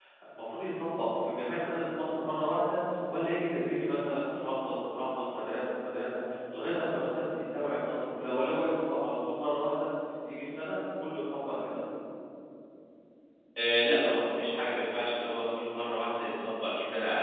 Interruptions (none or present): none